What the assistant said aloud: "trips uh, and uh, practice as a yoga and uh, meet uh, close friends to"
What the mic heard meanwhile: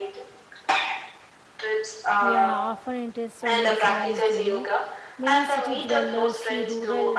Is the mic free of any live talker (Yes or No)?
No